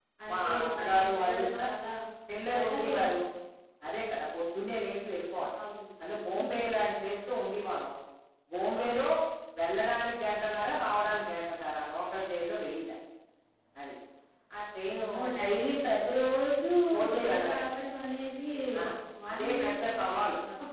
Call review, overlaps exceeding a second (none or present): present